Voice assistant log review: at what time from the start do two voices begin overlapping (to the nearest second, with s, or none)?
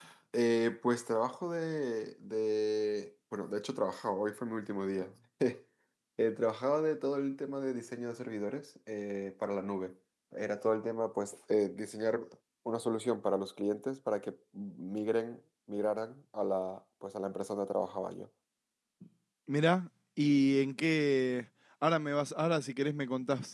none